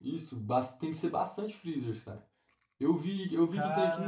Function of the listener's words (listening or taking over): listening